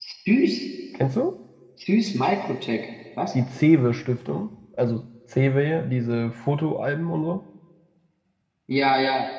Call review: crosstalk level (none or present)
none